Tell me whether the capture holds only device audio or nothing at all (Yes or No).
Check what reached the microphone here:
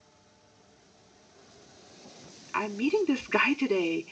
No